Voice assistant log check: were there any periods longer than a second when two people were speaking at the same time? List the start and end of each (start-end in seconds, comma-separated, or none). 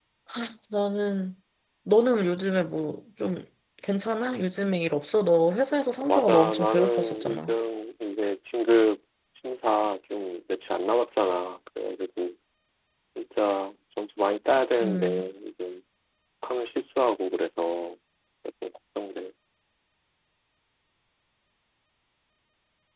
6.1-7.5